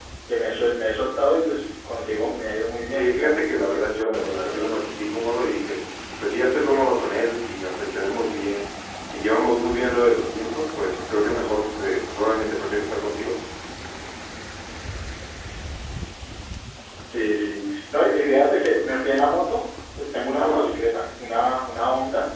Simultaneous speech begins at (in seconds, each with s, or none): 2.9 s